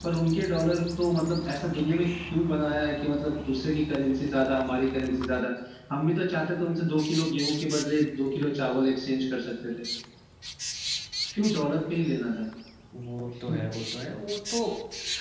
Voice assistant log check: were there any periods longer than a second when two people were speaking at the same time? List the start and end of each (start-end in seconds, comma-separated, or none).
none